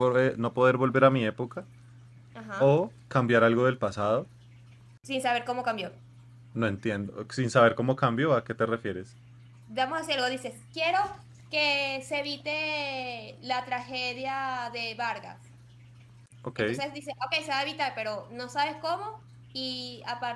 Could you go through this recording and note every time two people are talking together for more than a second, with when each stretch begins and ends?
none

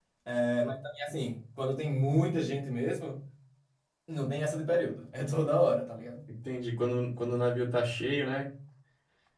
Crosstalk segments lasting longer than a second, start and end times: none

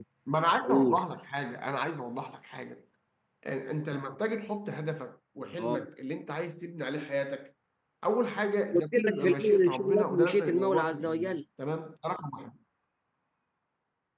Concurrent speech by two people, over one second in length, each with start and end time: 8.7-11.4

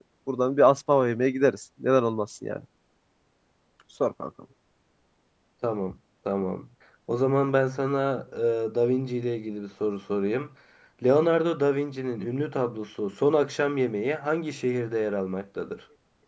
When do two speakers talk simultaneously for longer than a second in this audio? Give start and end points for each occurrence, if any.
none

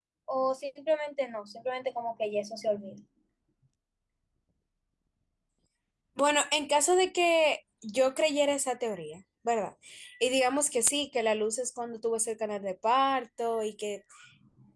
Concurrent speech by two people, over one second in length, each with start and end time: none

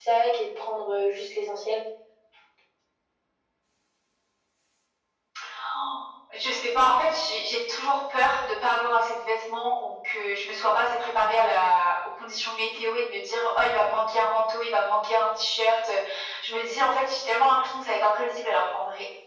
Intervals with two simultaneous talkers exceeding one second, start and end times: none

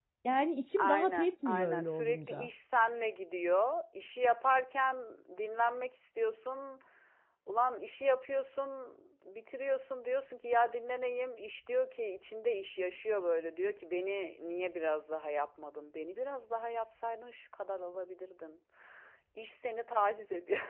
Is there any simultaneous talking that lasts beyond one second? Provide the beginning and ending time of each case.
0.8-2.5

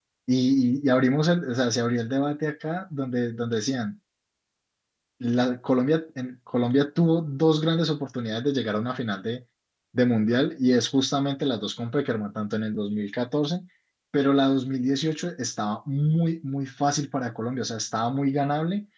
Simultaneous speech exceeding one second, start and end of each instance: none

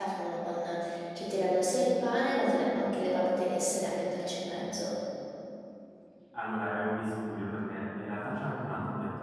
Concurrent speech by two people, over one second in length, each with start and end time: none

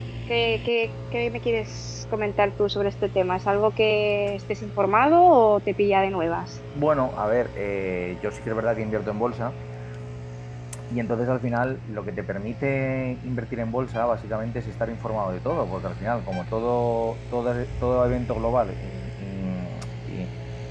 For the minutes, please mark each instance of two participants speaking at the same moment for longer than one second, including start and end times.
none

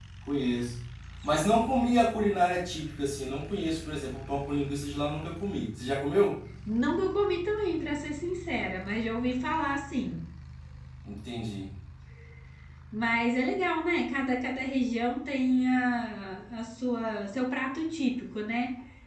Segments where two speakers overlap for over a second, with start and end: none

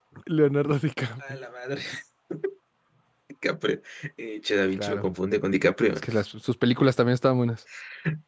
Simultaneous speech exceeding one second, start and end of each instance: none

